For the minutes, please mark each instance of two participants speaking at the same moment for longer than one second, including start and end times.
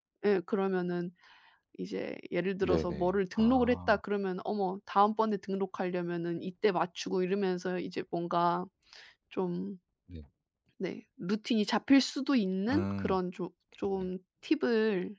2.6-4.0

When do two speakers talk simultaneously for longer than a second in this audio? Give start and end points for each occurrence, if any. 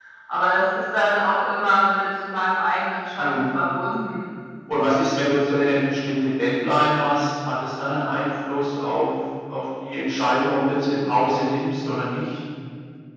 none

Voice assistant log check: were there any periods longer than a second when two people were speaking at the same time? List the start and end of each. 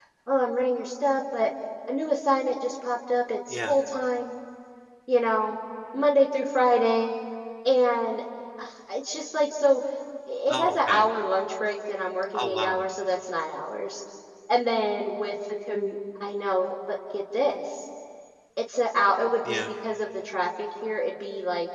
none

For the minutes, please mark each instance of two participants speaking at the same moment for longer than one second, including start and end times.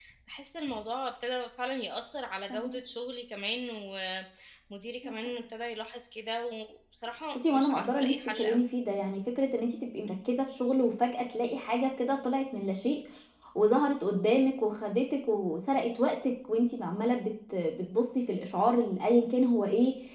7.4-8.6

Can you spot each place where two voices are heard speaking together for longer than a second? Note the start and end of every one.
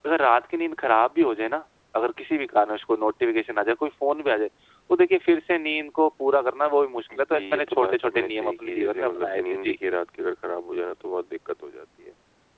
7.3-9.8

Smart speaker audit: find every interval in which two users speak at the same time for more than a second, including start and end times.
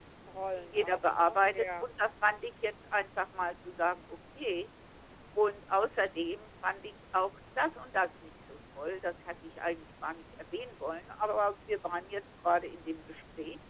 0.6-1.9

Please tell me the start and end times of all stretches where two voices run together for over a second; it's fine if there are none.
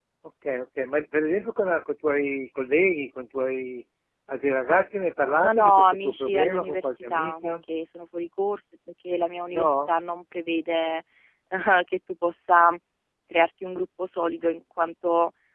5.4-7.5

